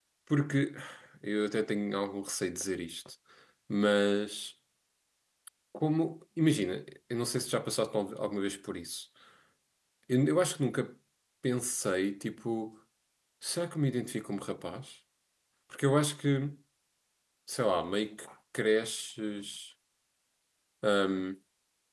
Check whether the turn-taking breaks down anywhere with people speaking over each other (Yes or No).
No